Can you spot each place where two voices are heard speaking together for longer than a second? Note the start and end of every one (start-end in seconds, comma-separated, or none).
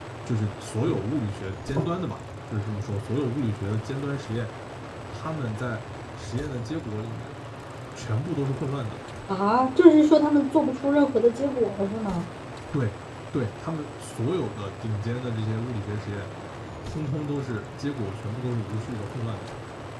none